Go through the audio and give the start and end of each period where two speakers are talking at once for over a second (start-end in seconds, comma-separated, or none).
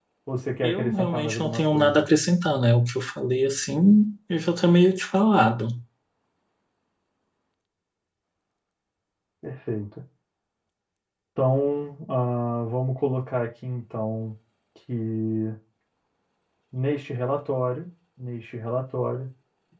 0.6-2.0